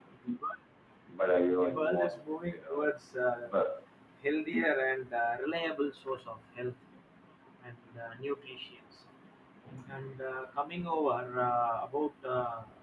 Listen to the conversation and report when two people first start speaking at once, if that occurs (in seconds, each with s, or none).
1.6 s